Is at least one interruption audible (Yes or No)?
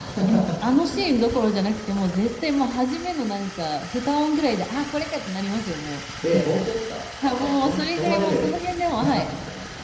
Yes